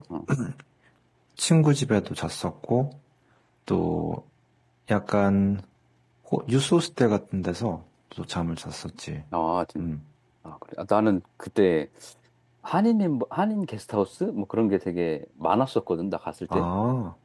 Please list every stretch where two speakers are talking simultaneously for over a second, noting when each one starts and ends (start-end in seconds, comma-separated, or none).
none